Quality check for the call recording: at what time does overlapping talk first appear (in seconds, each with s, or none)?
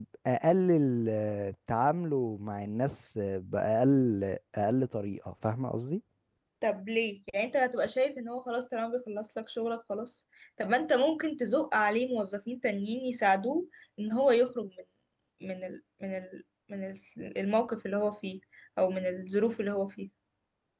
none